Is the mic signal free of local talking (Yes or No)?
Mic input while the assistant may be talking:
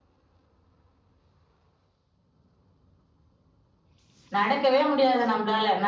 No